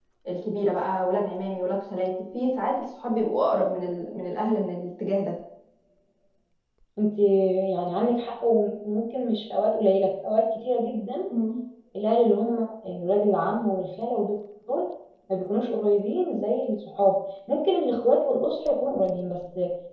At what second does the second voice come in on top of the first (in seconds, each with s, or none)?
none